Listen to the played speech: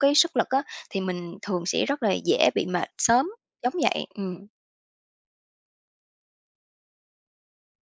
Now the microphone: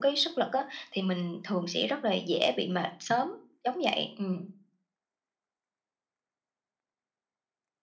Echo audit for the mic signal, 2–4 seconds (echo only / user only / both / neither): echo only